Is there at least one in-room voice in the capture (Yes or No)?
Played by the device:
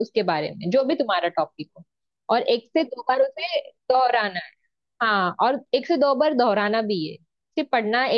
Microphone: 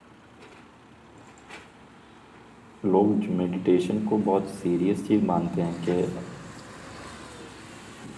Yes